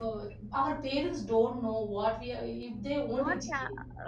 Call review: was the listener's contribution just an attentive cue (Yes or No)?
No